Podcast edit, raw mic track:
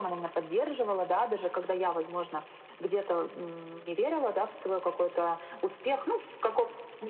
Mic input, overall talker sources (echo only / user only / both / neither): echo only